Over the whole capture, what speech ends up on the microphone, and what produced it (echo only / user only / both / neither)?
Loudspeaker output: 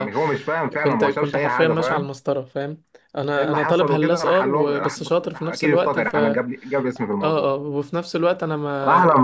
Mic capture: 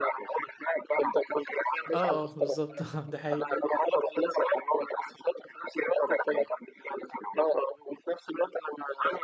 both